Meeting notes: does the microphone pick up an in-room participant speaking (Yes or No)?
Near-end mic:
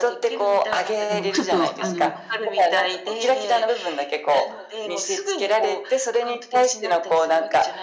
Yes